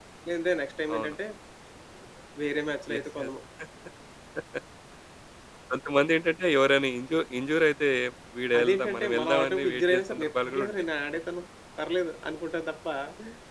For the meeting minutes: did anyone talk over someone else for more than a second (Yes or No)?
Yes